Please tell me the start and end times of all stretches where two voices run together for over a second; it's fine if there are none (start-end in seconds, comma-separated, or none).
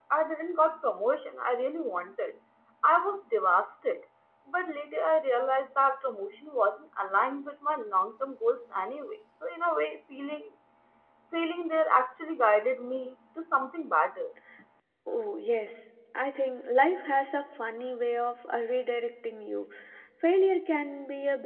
none